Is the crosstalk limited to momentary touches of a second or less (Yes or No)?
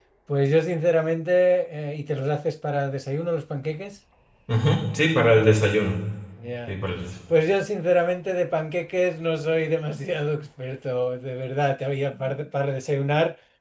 Yes